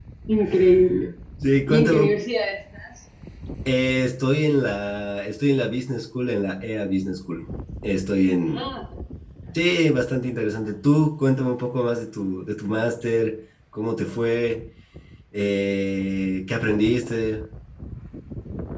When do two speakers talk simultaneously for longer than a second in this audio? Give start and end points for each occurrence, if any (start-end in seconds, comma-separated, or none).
none